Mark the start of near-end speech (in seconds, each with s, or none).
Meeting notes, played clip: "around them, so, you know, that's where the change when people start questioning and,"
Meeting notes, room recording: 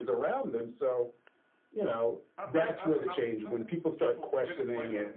2.4 s